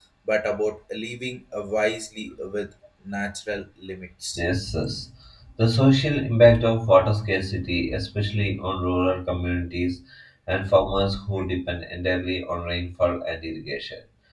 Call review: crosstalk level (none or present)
none